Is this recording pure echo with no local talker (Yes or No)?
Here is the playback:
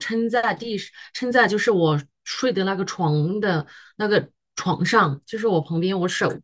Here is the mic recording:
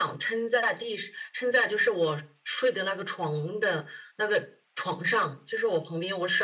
Yes